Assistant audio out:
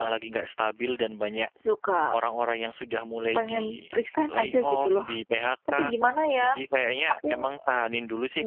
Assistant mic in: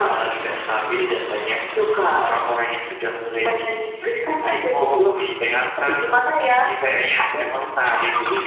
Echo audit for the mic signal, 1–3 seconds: echo only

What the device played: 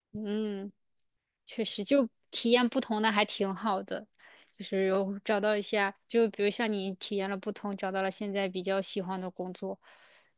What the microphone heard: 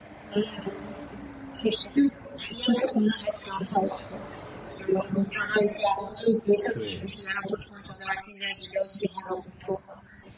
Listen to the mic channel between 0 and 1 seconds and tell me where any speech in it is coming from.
echo only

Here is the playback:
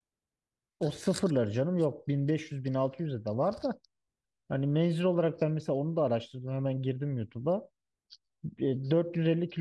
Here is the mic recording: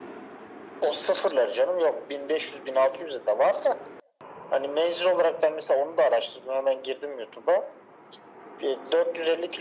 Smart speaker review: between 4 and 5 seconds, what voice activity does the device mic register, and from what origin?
echo only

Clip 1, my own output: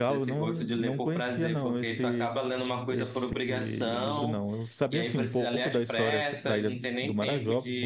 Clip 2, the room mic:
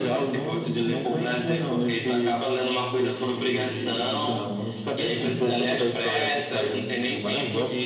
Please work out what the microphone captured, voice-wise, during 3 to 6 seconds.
echo only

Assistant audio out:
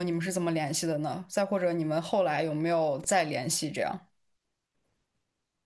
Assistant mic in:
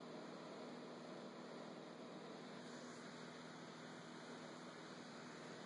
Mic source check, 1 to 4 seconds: neither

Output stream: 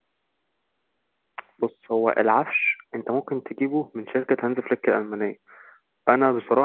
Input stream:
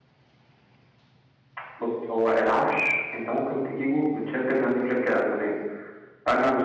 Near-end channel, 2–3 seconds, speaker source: echo only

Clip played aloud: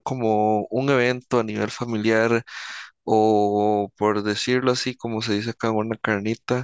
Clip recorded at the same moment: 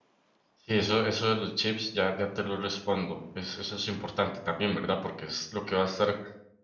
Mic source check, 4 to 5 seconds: user only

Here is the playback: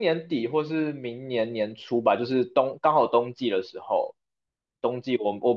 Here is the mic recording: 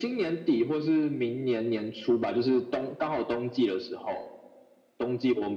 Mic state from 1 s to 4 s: echo only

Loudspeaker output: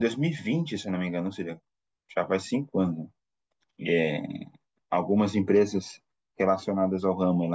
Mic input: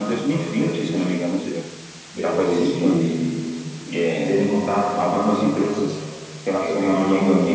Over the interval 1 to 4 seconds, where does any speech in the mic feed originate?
both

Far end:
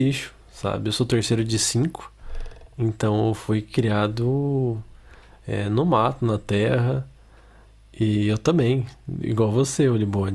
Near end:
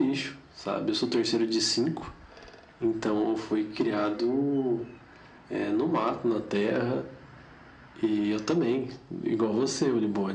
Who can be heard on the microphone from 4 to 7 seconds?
echo only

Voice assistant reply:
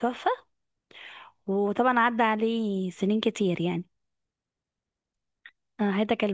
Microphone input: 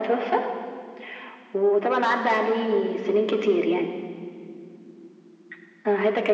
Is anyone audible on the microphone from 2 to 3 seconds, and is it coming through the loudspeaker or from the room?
echo only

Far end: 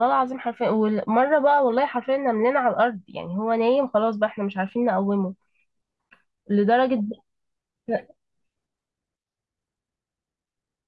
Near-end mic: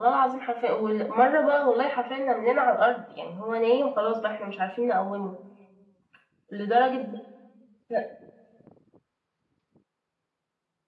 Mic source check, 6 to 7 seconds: echo only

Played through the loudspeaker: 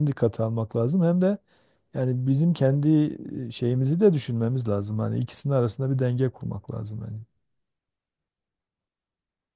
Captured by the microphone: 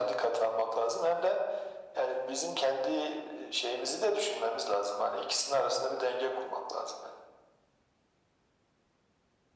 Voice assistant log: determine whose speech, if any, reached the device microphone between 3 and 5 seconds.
echo only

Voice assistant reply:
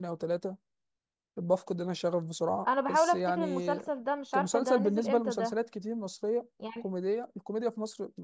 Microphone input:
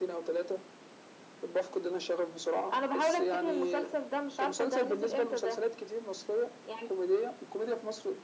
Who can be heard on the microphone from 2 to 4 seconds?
echo only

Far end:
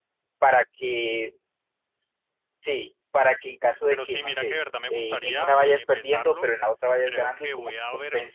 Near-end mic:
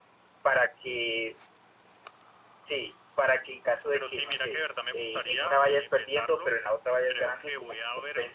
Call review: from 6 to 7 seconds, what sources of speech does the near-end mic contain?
echo only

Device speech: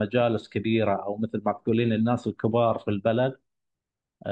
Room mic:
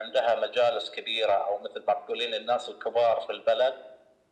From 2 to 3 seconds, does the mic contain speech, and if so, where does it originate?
echo only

